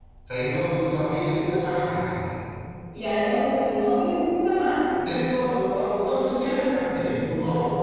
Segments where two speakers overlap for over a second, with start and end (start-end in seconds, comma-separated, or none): none